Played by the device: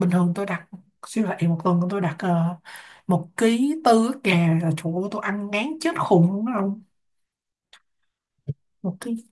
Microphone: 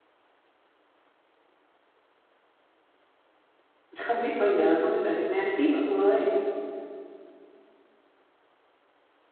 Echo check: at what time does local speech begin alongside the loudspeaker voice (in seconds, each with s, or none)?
4.0 s